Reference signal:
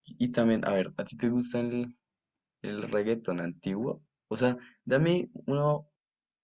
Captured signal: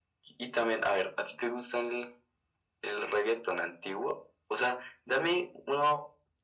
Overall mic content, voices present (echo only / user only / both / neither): echo only